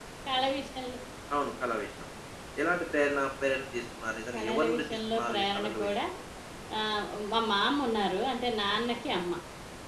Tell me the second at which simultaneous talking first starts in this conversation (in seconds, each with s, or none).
4.3 s